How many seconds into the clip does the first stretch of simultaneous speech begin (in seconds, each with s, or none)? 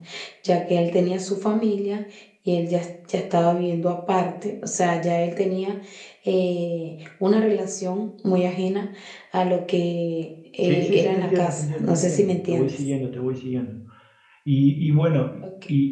10.6 s